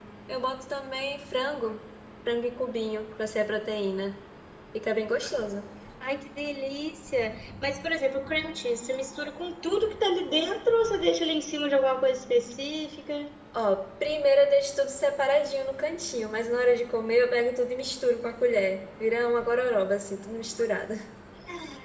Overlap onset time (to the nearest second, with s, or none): none